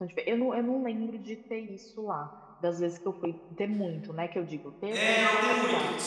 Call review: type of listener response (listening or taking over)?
taking over